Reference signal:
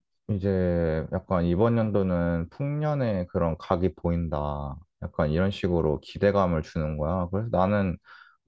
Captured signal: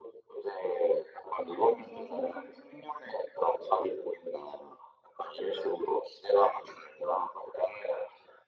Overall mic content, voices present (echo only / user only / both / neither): both